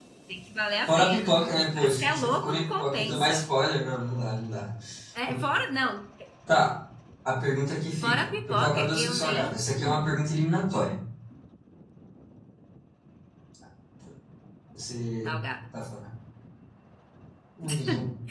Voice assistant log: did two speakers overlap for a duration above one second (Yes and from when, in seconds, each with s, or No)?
Yes, from 0.8 s